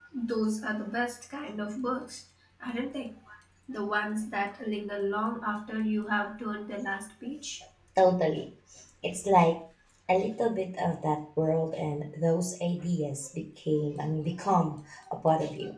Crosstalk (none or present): none